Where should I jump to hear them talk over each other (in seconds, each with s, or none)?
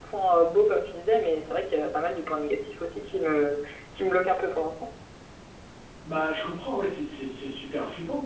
none